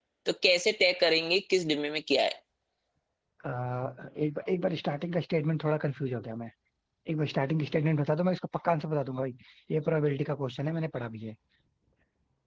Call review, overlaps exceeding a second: none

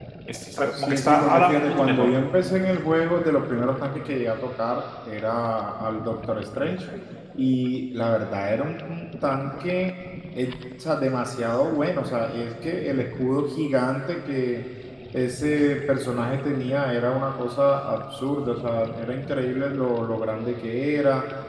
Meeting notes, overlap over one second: present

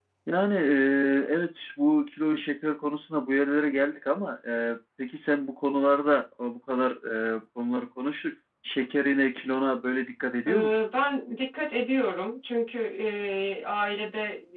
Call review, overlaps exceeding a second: none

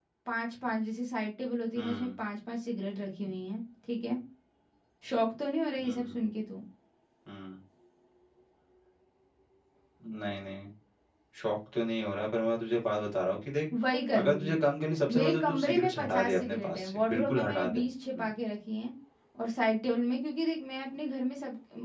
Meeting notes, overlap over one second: present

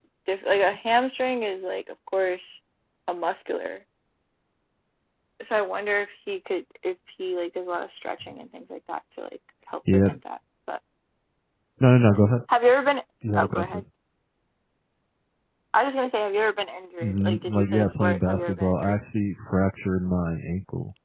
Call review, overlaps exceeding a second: present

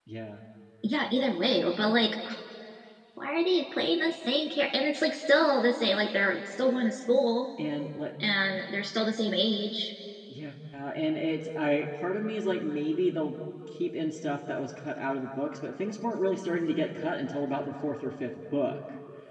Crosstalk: none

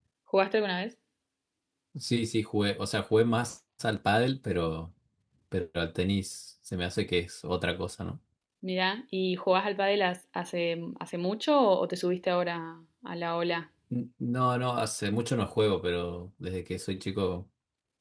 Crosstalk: none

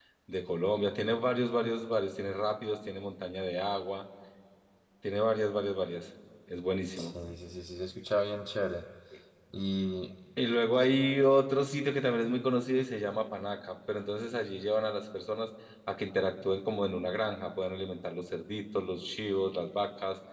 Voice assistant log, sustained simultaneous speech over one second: none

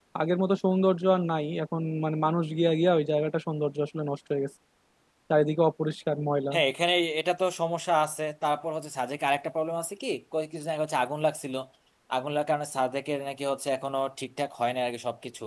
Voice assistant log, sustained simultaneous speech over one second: none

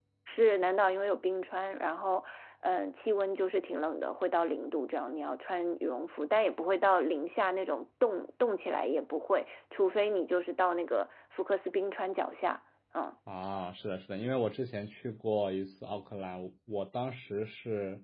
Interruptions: none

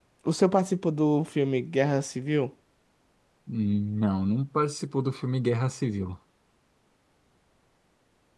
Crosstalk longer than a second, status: none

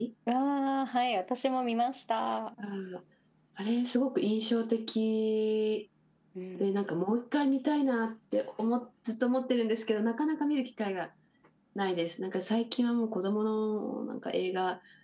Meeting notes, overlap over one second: none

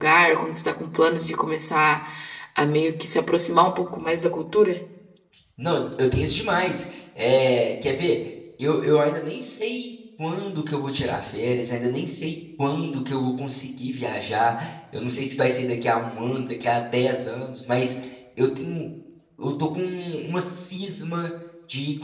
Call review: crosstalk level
none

